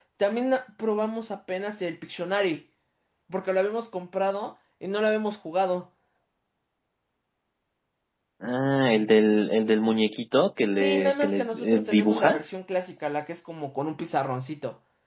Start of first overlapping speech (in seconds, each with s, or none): 10.7 s